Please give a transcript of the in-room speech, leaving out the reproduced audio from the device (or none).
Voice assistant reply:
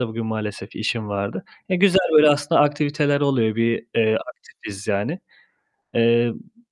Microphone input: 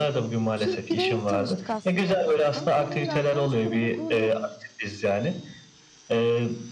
Türk bireyle tanıştık aslına bakarsan. Sonra bir arkadaş grubu kurduk.